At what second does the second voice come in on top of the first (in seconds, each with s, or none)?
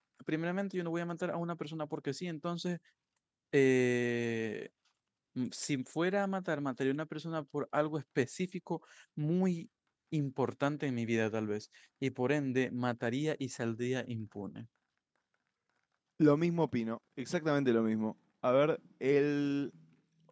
none